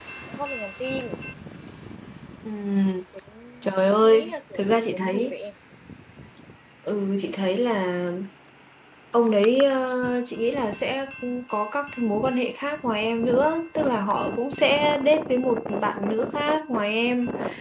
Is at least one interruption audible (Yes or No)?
Yes